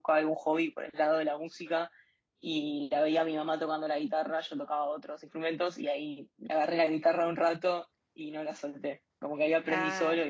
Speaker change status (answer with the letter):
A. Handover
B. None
B